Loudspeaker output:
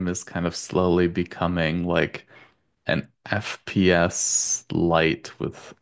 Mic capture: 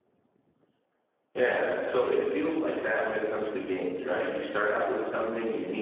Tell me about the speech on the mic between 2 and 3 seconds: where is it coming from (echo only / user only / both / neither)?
user only